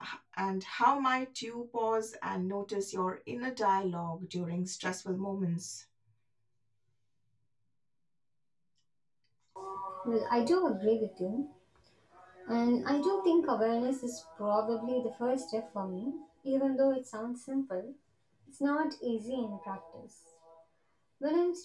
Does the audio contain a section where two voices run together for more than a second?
No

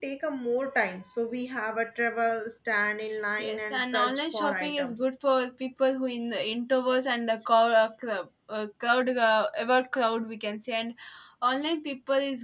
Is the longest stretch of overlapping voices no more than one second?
No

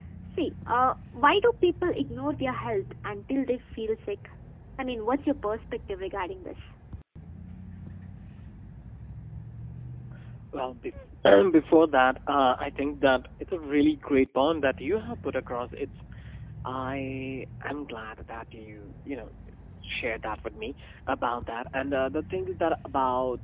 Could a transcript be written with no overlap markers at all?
Yes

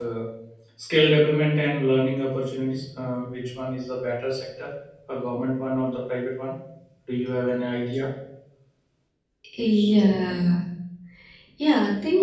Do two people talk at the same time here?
No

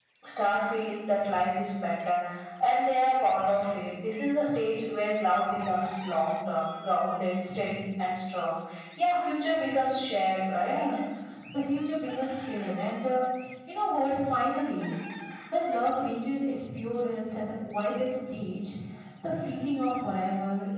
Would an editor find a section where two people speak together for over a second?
No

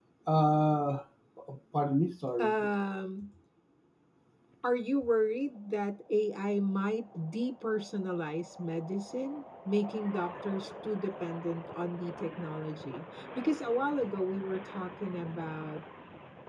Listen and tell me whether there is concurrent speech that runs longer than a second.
No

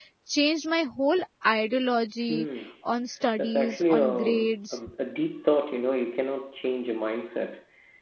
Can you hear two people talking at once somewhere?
Yes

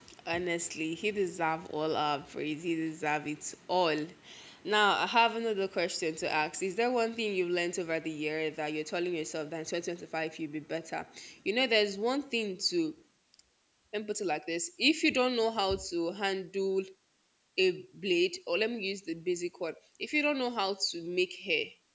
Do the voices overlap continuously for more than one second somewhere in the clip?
No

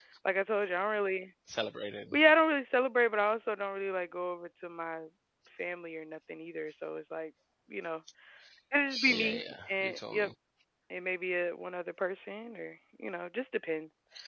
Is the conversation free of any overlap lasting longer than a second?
No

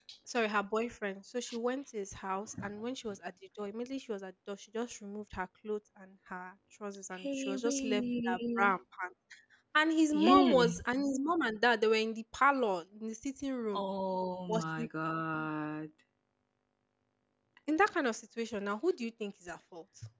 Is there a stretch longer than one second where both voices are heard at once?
Yes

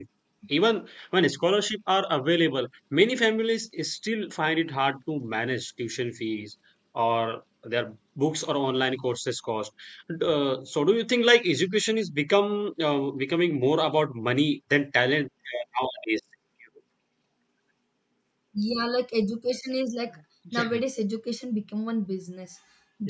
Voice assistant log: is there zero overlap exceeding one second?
Yes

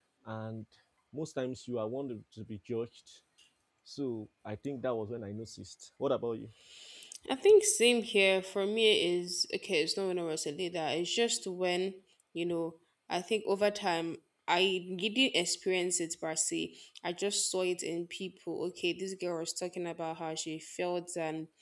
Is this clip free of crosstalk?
Yes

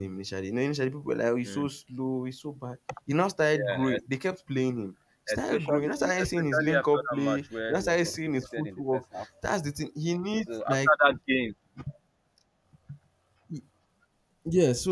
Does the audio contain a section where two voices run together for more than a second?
Yes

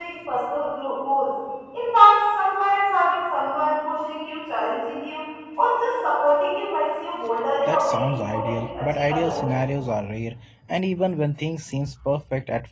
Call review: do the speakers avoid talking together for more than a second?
No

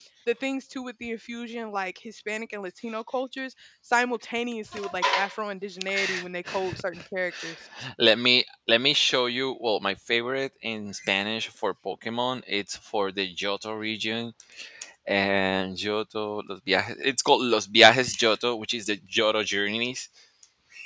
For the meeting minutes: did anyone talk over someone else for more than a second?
No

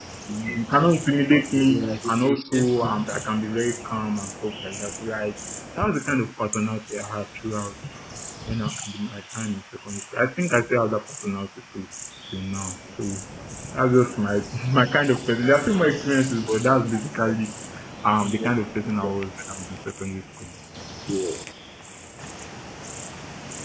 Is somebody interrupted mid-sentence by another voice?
Yes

